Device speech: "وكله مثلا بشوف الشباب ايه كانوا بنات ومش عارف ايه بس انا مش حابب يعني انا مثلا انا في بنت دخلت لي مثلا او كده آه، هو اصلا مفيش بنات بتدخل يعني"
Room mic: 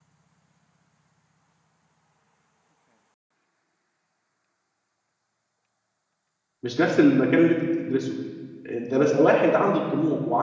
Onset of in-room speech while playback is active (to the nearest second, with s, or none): 7 s